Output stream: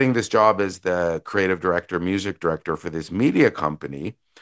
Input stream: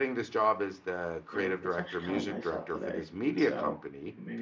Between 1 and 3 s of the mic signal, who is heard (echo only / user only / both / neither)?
both